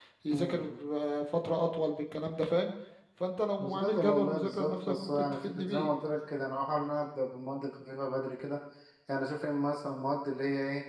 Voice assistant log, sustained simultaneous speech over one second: present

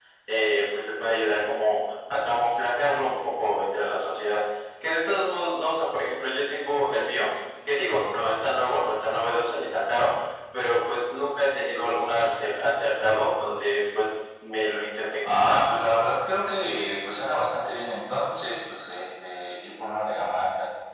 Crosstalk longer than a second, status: none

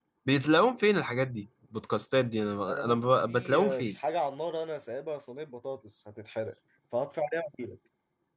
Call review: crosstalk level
present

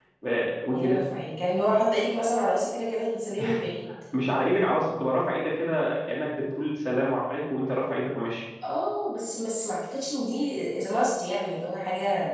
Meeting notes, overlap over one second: none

